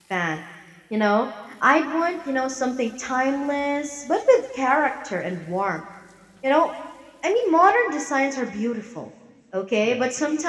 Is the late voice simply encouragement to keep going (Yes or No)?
Yes